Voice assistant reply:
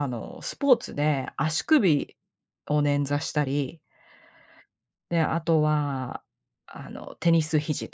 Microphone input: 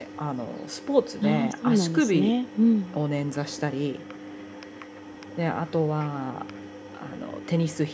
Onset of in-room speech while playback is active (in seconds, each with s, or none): 1.2 s